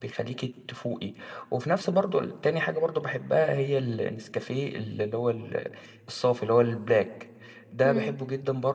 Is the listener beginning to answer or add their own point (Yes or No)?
No